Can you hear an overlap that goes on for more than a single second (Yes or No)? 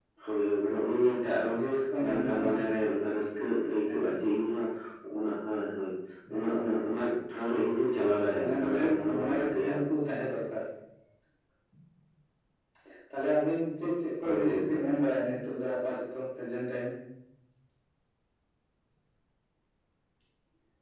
Yes